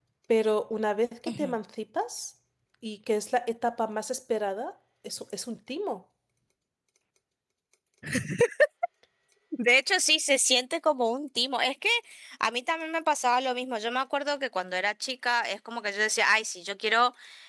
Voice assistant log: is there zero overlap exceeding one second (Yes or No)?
Yes